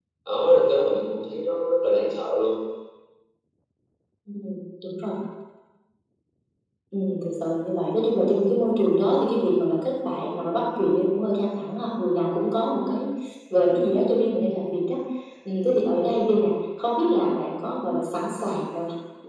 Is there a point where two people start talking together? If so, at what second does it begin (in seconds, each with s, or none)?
none